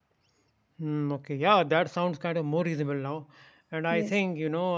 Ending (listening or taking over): listening